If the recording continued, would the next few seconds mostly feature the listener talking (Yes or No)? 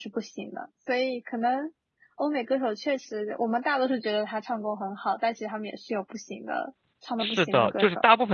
Yes